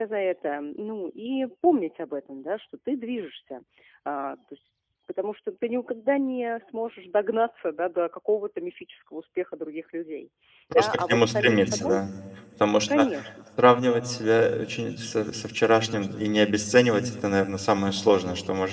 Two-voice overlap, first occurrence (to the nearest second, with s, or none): 11 s